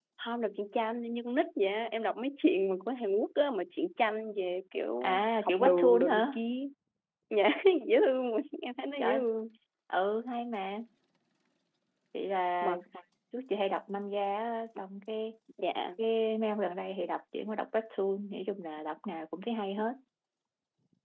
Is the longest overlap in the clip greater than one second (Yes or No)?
Yes